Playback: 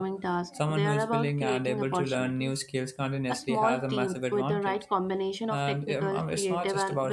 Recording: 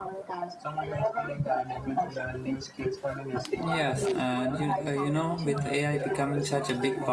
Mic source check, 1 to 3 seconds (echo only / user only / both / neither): echo only